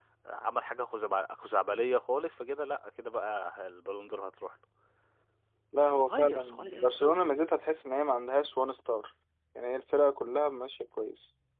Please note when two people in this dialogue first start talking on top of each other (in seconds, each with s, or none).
5.8 s